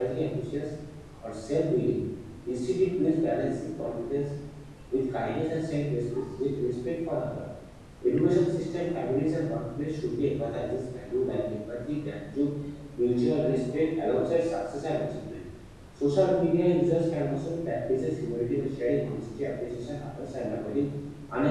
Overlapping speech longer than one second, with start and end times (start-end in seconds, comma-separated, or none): none